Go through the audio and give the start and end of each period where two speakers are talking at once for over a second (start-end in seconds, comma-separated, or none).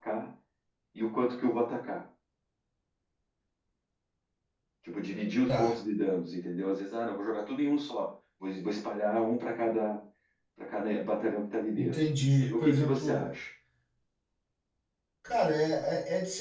11.8-13.3